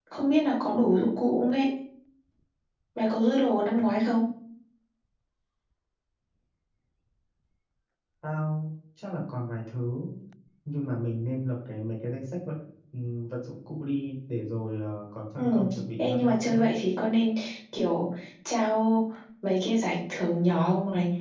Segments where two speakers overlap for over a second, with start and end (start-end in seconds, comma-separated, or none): 15.4-16.7